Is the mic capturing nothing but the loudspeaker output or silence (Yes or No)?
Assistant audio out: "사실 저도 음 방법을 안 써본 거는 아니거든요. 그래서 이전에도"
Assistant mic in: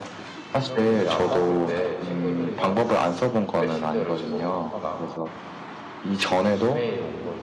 No